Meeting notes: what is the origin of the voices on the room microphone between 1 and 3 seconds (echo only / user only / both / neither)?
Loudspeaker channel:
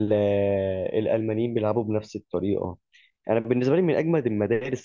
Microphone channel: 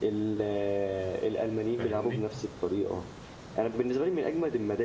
both